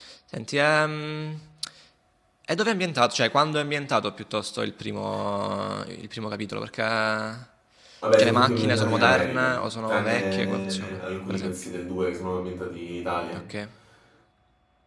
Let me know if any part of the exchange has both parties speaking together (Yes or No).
Yes